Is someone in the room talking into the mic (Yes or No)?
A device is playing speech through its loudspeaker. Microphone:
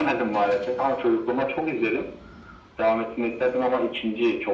No